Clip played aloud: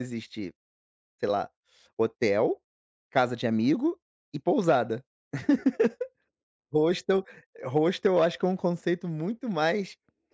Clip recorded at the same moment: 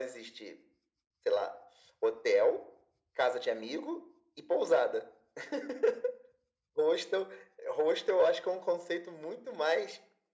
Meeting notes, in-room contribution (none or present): none